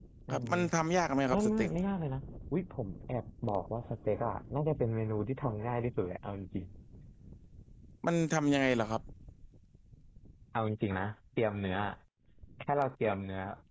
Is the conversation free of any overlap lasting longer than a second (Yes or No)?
Yes